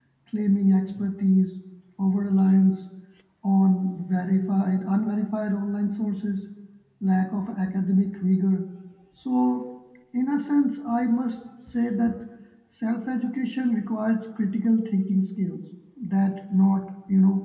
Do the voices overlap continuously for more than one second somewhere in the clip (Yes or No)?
No